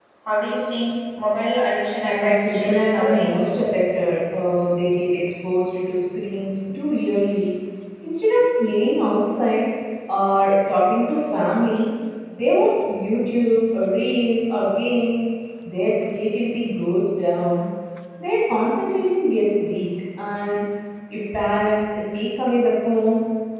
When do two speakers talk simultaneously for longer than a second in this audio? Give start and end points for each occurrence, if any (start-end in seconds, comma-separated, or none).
2.0-3.8